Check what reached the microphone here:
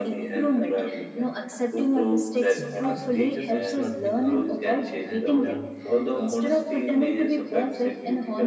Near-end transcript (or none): It teaches us to admit our mistakes and learn from the,